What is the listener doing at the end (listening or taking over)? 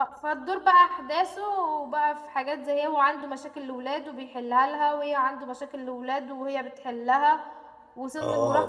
listening